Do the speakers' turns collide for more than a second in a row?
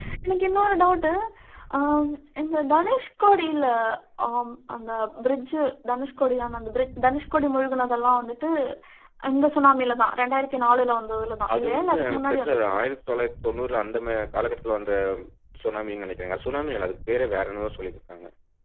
Yes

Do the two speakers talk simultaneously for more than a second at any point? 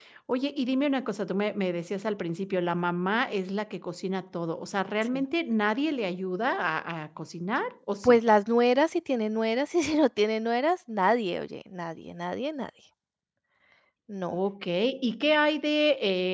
No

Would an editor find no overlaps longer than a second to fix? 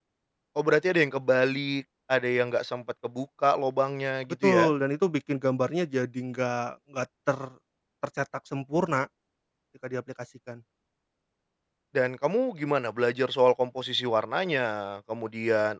Yes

